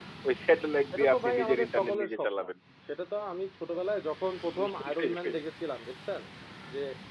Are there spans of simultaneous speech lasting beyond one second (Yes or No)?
Yes